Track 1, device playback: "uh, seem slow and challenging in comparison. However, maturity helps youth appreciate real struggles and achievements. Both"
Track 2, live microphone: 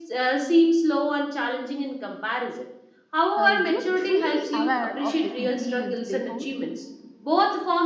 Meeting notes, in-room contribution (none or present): present